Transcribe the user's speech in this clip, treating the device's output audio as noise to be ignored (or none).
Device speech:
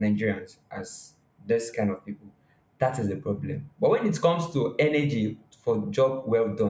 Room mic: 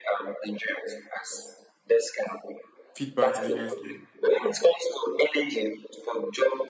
feedback that you guys give.